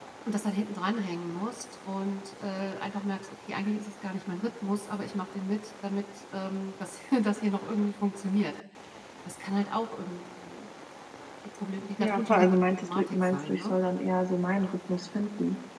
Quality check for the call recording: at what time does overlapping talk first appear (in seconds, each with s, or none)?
12.0 s